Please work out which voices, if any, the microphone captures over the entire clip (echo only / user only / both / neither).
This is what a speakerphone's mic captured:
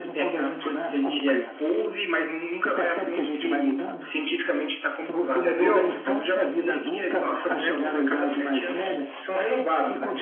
both